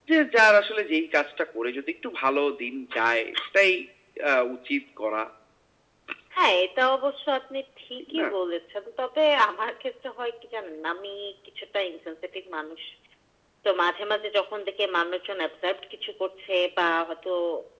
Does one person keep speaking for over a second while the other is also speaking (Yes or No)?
No